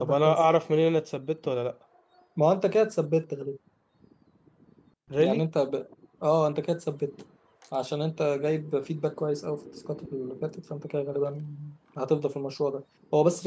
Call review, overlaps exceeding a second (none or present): none